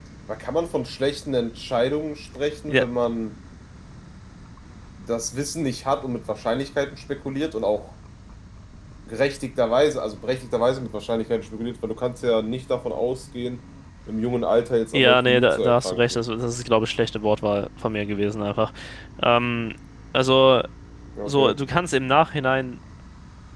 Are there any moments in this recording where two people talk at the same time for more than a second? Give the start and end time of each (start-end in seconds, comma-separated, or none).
14.9-16.2